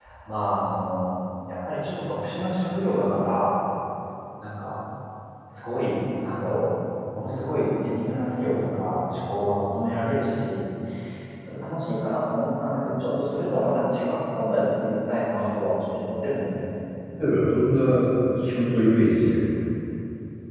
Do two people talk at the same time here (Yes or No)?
No